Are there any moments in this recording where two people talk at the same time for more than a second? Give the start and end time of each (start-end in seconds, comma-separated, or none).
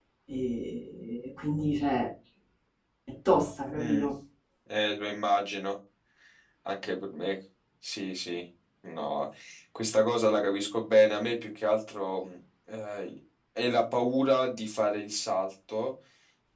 none